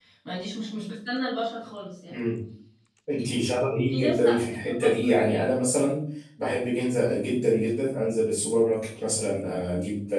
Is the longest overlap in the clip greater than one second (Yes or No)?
Yes